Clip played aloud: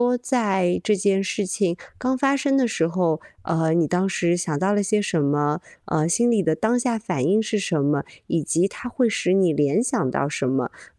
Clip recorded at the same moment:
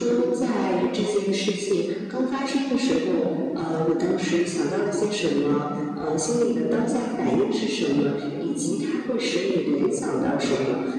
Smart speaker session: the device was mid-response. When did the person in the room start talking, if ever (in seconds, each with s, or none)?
none